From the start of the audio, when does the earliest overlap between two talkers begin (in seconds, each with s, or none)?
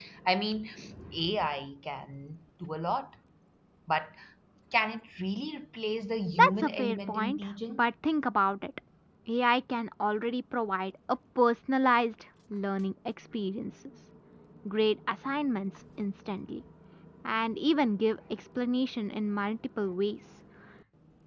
6.3 s